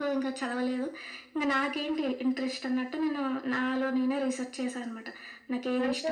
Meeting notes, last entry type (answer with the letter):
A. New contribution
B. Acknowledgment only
A